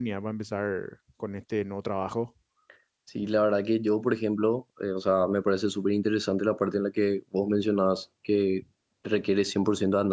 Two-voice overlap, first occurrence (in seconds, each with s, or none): none